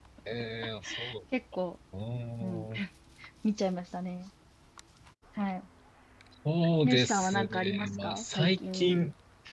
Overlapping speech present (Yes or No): Yes